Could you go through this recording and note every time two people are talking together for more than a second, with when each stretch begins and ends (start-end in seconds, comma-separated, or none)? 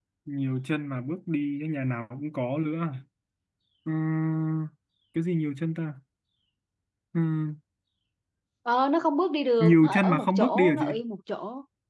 9.6-10.8